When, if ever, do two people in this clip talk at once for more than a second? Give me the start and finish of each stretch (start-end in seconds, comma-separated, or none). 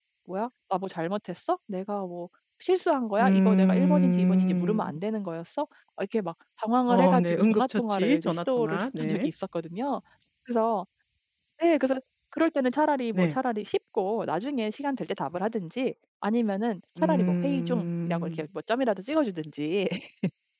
3.2-4.9, 6.9-9.3, 17.0-18.5